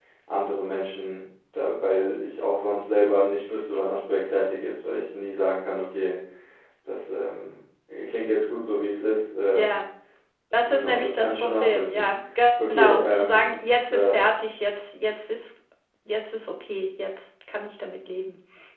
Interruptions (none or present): present